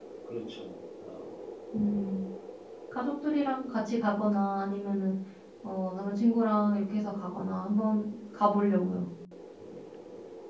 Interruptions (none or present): none